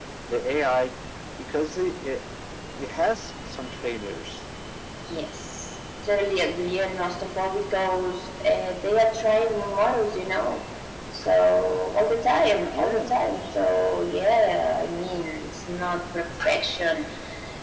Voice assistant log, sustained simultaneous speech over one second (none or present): none